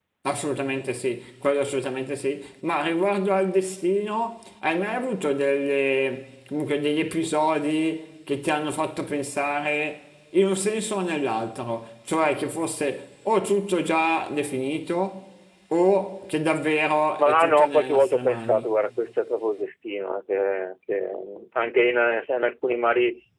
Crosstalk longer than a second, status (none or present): present